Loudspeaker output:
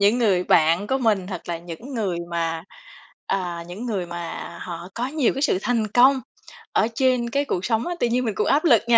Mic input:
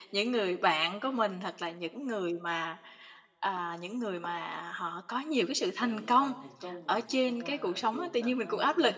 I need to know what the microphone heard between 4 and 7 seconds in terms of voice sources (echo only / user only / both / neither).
both